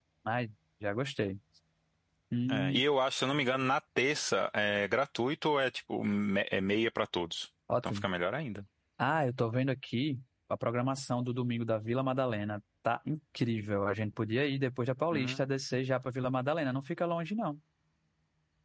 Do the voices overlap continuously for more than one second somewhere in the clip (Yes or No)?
No